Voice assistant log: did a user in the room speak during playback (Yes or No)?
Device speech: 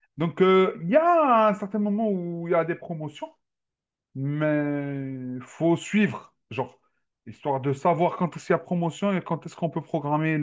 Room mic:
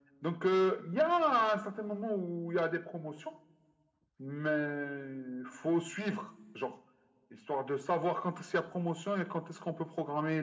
No